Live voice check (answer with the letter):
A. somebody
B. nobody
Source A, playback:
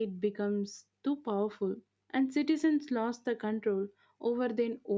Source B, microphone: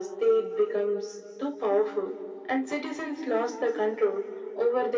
B